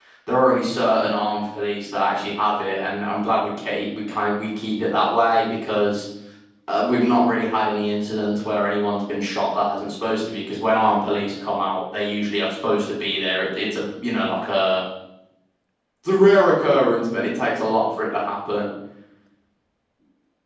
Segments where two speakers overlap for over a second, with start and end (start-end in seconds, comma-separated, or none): none